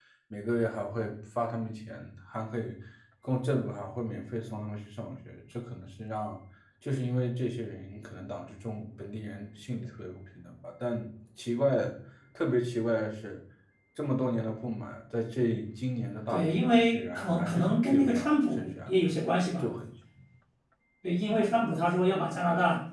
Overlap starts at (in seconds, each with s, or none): 16.3 s